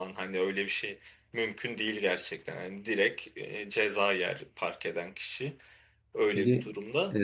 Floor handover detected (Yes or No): Yes